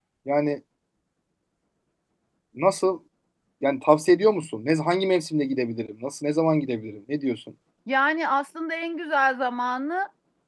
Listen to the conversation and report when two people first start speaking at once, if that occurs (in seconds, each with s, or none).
none